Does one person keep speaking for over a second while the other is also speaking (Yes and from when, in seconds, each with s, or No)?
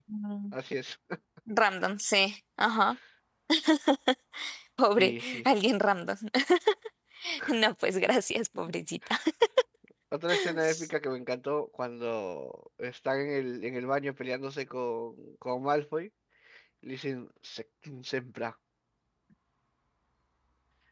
No